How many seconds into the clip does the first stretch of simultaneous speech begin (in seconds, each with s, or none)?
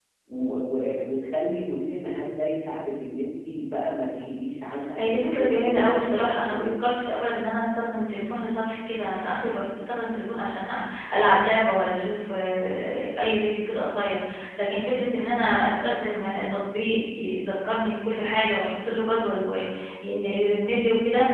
5.0 s